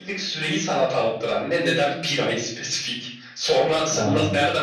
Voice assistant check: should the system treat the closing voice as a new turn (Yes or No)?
No